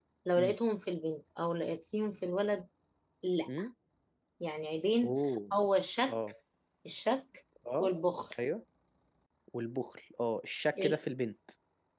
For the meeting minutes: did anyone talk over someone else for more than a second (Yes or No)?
No